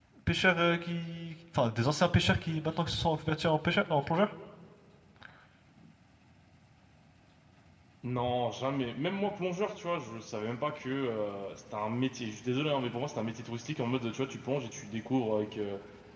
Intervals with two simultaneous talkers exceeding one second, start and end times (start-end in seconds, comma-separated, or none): none